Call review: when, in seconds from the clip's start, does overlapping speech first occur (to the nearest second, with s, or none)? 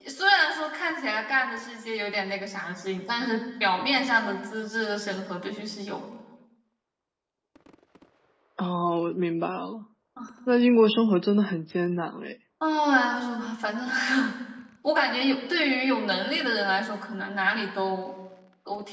none